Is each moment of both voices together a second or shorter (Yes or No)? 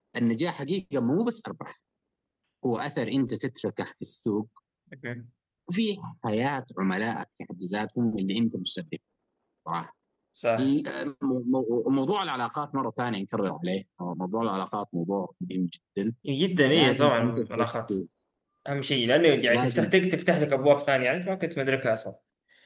No